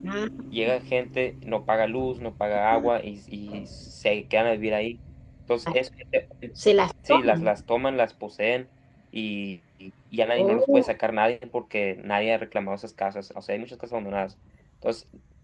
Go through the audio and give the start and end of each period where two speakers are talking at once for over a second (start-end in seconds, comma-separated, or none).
none